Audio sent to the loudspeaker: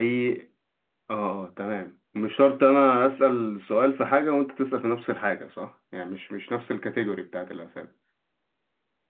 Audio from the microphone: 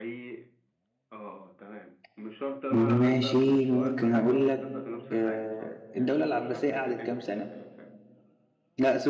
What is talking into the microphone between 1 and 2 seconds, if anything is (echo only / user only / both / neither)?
echo only